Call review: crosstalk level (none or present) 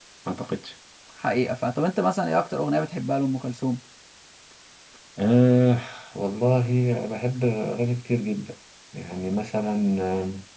none